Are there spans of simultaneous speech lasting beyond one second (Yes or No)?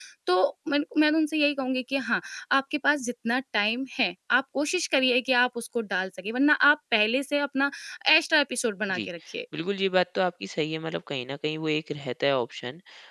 No